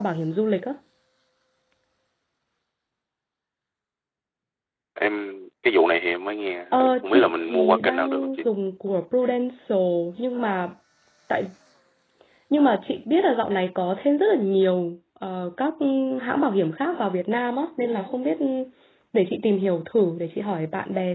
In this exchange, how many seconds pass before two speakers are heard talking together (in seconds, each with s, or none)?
6.7 s